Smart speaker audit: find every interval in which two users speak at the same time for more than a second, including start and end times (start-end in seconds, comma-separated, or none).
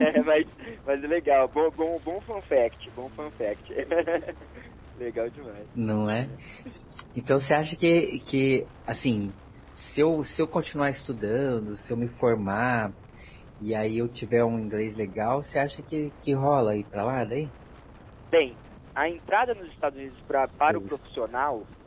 none